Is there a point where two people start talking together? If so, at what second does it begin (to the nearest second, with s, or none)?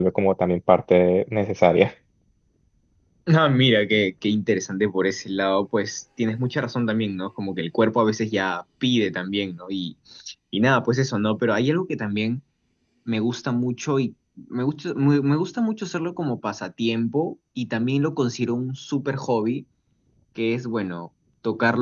none